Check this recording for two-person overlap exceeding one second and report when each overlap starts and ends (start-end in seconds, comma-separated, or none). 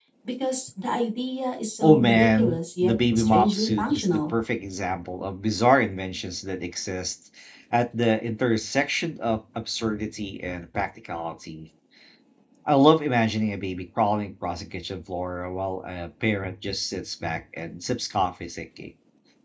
1.8-4.3